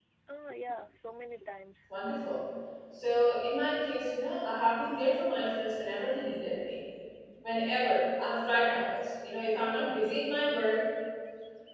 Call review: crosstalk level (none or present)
none